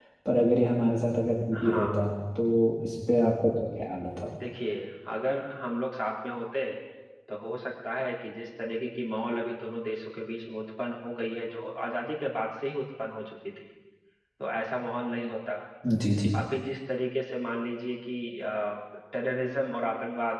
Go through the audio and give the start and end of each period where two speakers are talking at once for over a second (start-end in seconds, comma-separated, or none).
none